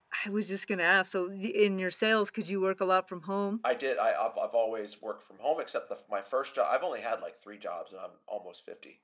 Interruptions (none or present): none